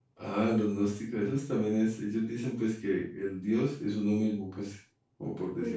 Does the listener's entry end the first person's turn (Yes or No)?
Yes